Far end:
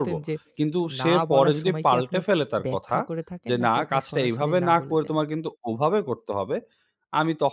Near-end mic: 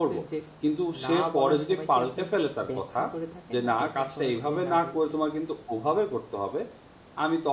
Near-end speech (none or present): none